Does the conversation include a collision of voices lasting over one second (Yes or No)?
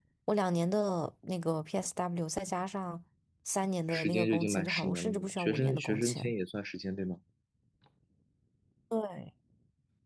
Yes